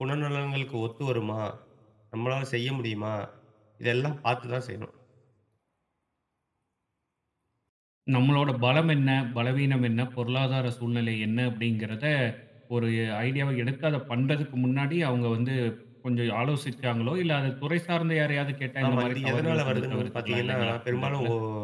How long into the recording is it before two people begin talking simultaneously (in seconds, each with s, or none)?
18.8 s